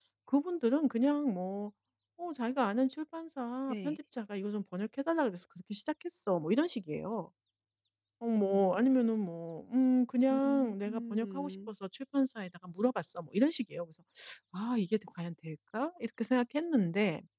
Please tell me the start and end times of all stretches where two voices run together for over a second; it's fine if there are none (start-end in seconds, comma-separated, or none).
10.3-11.7